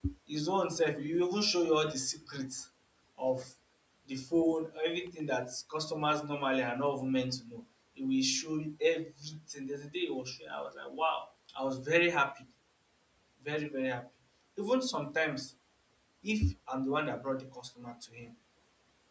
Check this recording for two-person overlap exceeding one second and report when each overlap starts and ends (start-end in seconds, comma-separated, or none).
none